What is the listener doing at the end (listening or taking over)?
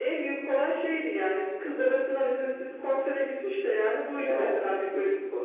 listening